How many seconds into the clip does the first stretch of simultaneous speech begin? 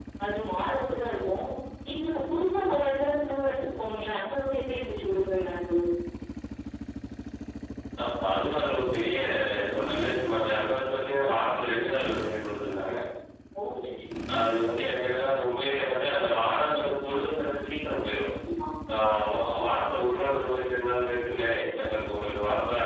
none

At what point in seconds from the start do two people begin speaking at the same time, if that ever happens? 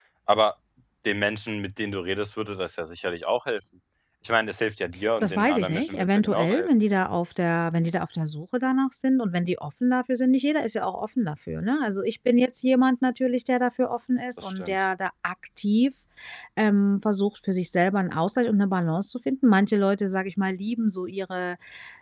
5 s

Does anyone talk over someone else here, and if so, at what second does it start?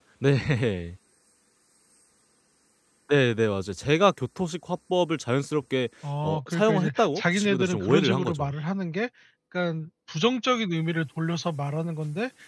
6 s

